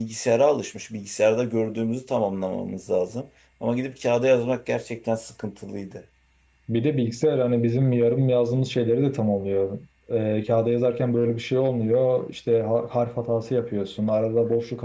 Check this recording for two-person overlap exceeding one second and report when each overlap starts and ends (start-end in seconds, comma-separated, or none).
none